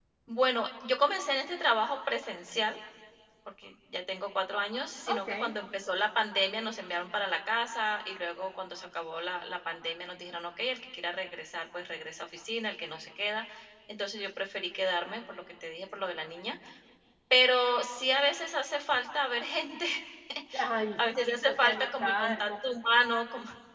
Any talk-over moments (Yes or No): Yes